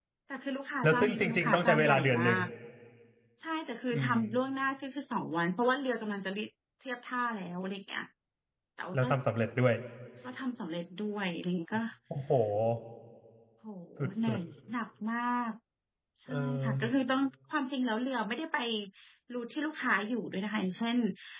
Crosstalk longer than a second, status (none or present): present